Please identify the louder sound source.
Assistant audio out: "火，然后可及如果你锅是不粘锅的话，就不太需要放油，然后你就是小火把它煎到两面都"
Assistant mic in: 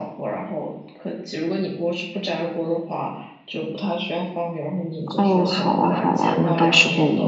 user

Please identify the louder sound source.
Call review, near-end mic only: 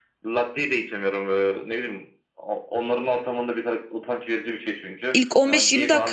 user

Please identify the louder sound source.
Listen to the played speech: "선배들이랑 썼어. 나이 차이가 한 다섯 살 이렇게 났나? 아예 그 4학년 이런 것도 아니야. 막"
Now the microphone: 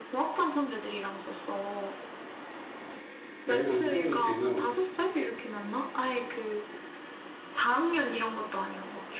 user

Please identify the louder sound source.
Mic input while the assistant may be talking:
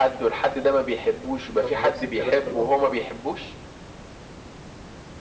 echo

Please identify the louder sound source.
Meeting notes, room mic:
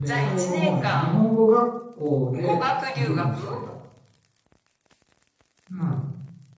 user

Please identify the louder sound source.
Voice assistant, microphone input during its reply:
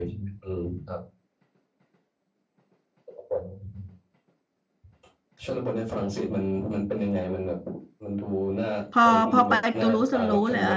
user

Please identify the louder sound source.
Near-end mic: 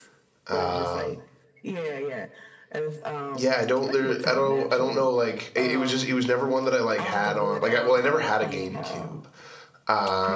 user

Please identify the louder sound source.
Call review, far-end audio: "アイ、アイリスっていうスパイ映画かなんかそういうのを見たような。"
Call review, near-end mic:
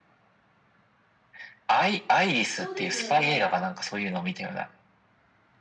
echo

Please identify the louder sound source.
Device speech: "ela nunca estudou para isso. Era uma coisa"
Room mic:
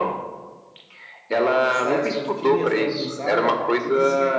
echo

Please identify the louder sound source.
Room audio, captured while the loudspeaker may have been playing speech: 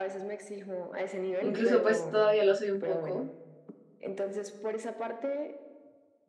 user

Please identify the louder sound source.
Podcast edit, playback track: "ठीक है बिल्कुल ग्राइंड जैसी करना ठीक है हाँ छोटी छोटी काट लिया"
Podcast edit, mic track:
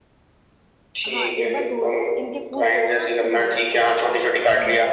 echo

